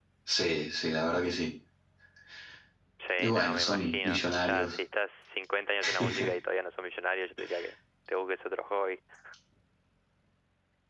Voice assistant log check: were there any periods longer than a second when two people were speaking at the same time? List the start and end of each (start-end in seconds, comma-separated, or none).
3.2-4.8